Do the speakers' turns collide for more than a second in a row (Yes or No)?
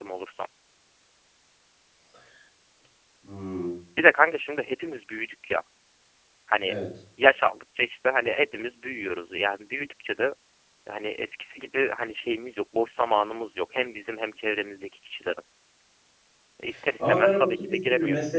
Yes